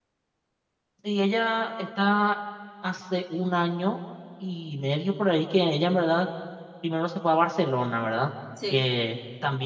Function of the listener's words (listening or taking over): listening